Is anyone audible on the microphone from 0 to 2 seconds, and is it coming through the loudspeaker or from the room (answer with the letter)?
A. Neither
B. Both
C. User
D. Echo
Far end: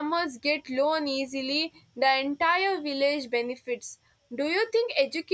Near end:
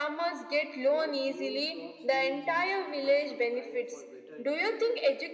B